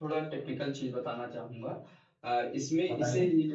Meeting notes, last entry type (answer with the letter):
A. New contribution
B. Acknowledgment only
B